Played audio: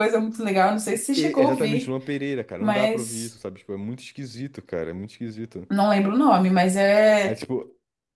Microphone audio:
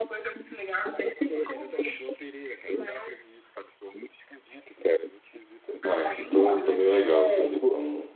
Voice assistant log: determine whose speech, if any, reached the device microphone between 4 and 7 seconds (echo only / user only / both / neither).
both